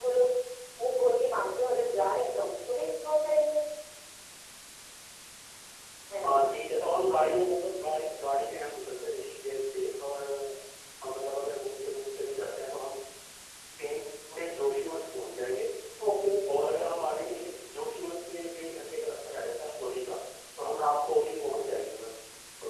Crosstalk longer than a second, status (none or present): none